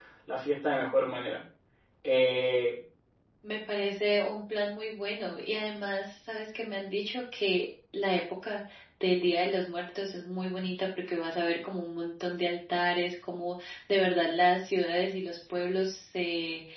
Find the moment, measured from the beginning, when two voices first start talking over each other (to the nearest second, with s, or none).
none